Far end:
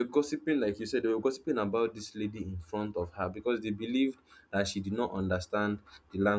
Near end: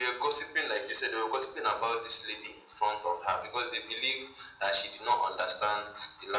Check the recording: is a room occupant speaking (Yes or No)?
No